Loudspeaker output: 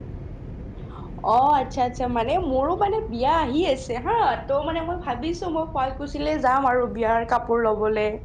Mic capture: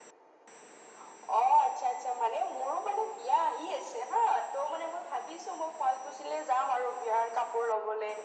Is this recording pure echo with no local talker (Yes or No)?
Yes